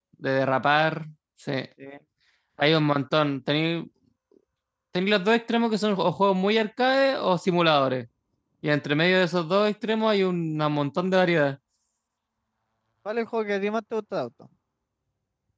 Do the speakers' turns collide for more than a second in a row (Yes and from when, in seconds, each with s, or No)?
No